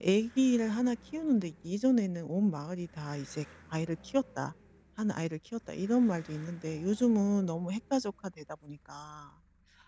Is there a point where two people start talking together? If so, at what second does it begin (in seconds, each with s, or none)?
none